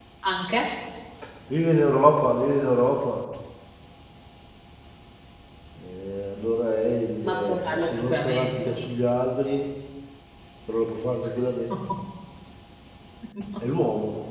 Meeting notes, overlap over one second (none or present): present